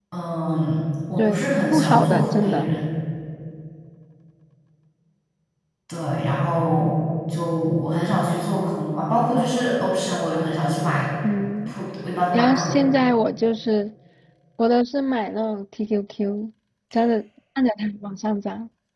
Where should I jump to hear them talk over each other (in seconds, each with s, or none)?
1.1 s